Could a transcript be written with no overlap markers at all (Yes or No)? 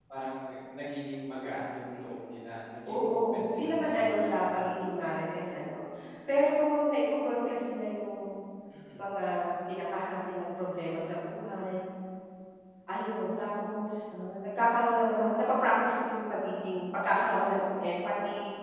No